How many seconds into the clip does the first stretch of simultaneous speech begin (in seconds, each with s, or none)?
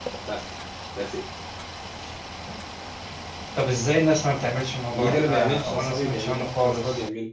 4.9 s